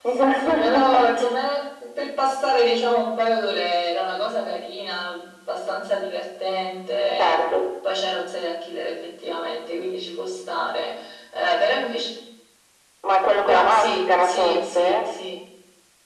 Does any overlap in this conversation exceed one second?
Yes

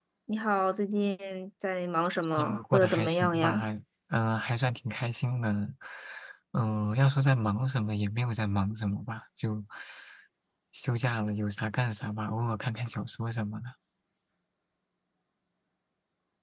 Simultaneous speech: Yes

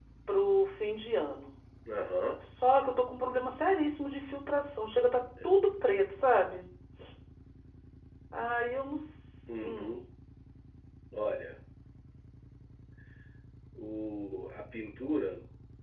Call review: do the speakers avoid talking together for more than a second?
Yes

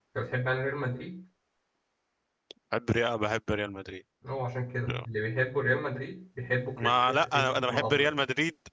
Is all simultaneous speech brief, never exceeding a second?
No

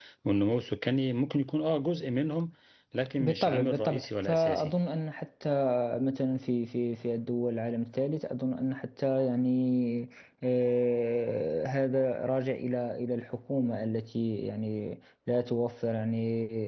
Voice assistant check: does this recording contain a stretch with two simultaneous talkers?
Yes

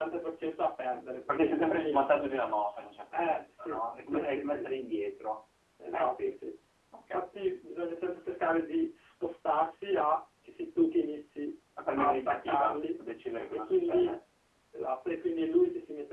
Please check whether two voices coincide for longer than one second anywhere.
Yes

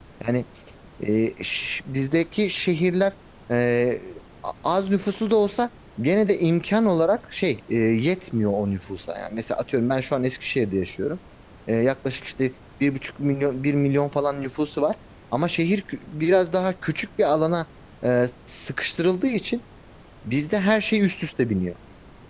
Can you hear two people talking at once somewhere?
No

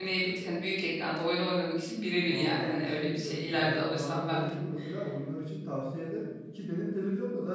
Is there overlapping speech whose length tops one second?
Yes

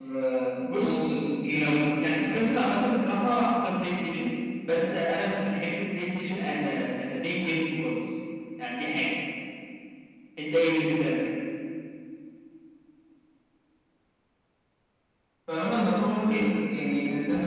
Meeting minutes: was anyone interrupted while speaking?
Yes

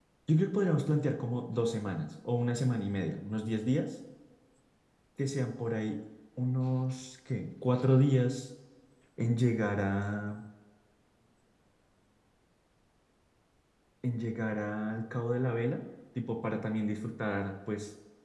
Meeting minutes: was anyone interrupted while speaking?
No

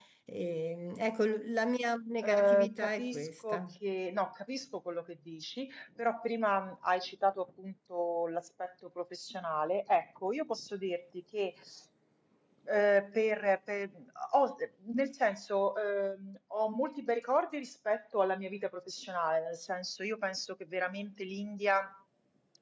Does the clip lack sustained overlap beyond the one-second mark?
No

